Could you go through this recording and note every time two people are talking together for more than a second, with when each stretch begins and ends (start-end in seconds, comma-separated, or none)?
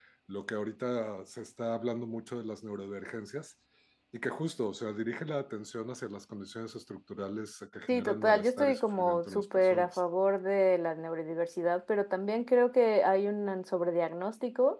7.9-10.0